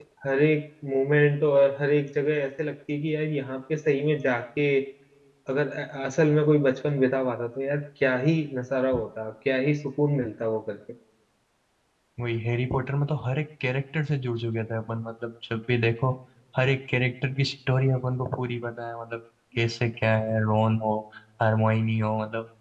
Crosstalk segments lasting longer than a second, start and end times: none

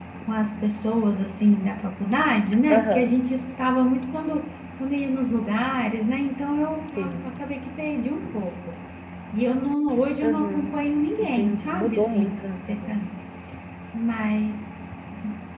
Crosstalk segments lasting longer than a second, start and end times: 11.3-13.0

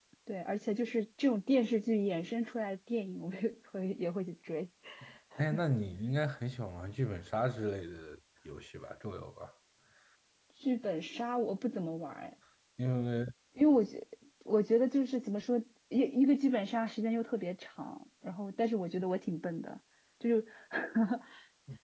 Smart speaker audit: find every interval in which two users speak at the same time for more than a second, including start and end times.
none

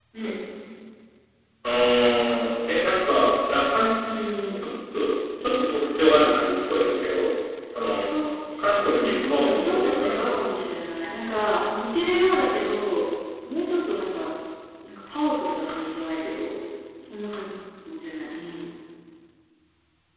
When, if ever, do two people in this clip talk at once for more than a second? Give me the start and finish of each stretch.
8.9-10.4

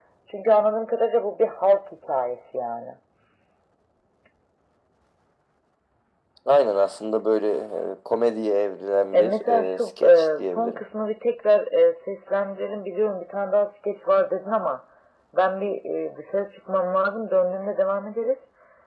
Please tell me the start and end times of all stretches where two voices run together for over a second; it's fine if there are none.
9.1-10.8

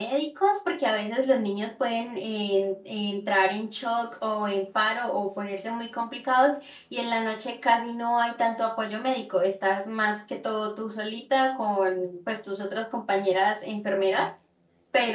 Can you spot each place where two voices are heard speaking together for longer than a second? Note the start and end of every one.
none

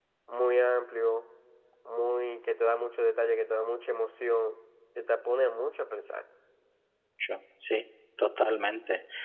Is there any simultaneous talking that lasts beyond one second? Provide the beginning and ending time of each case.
none

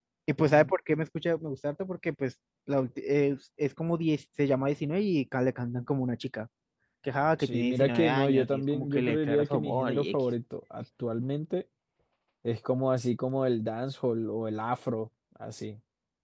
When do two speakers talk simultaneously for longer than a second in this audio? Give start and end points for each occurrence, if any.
7.4-10.2

